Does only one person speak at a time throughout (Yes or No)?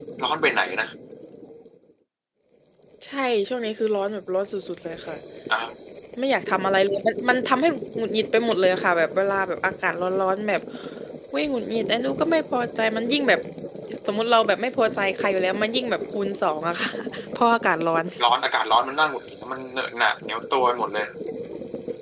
Yes